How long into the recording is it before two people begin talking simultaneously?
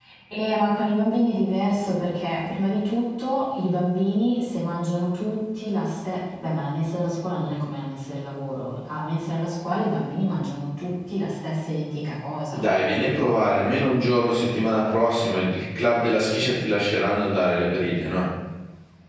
none

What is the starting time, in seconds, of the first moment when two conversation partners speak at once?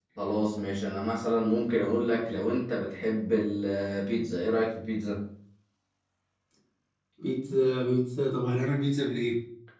none

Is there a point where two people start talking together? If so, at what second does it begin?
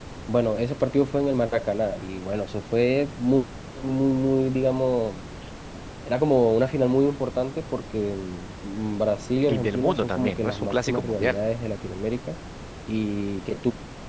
9.5 s

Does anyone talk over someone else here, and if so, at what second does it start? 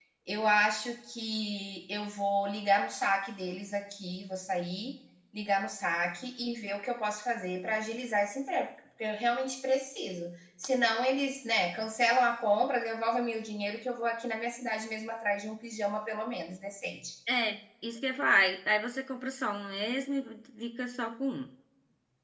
none

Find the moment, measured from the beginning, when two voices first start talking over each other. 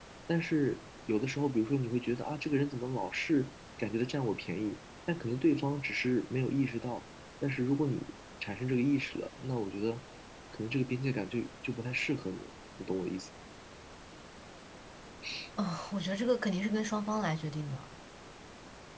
none

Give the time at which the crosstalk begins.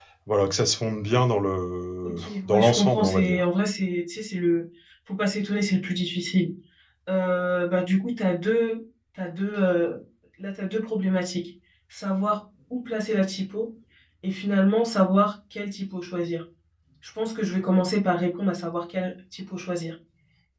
2.0 s

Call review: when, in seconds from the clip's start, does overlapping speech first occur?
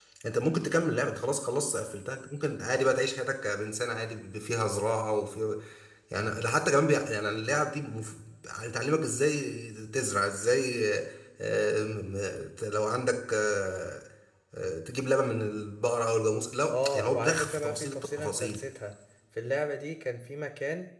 16.7 s

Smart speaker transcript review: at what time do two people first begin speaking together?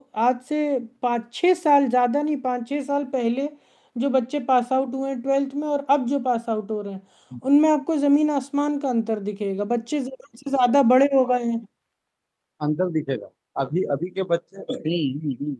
none

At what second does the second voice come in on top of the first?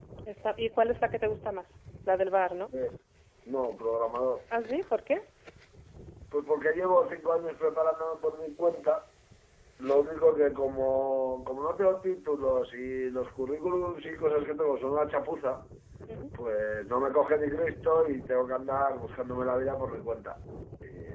none

